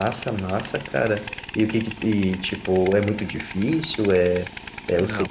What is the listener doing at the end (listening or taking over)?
taking over